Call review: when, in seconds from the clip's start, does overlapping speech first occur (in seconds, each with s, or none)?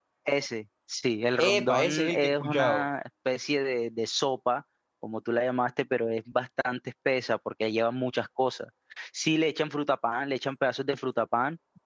1.4 s